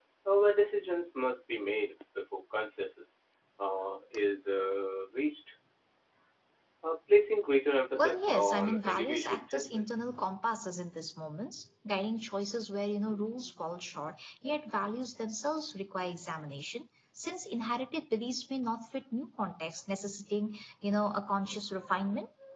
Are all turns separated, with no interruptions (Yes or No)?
No